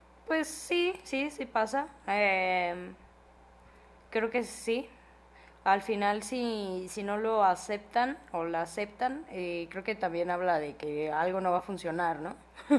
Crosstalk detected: No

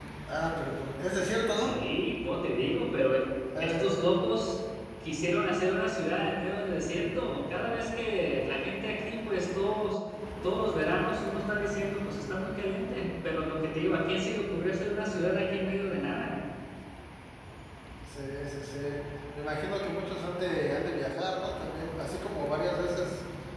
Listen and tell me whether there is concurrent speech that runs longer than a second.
No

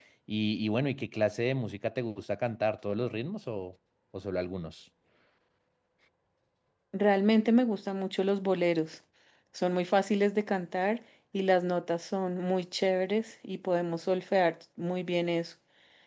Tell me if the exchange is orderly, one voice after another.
Yes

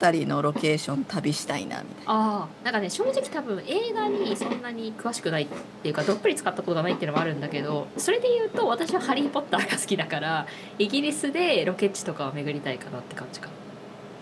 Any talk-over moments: No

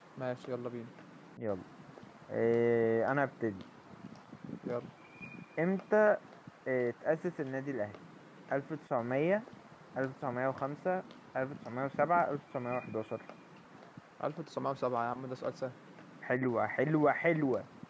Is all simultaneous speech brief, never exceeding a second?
Yes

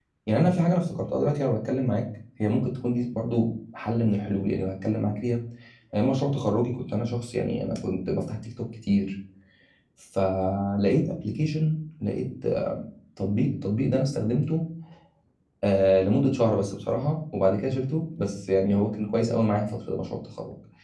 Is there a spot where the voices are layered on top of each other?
No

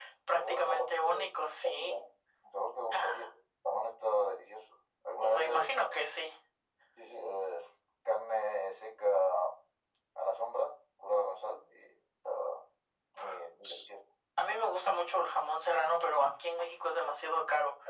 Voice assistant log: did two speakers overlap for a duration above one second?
Yes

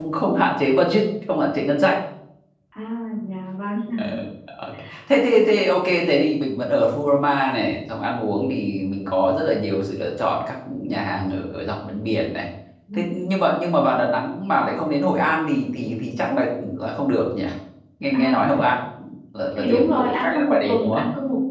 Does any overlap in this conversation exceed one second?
Yes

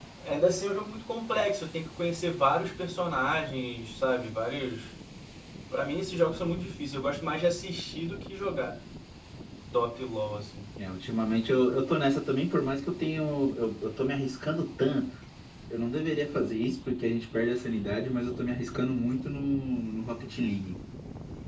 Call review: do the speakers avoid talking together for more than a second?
Yes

